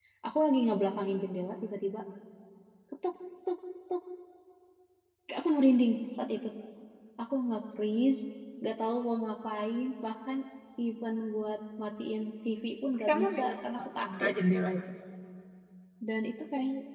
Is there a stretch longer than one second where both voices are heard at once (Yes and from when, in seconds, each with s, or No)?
Yes, from 13.0 s